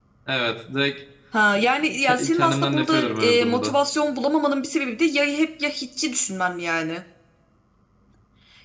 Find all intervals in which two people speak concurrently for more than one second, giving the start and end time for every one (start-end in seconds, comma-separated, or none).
2.0-3.8